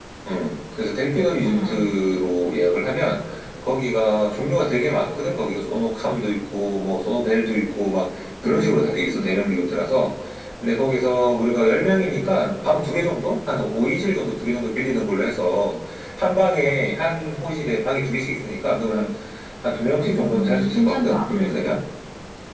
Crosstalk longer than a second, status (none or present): present